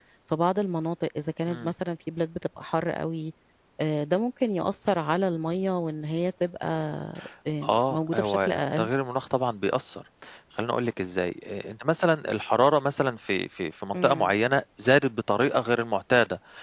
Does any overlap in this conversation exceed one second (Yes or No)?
Yes